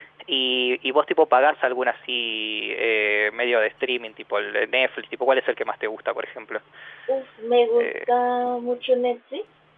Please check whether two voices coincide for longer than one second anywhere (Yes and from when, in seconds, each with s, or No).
No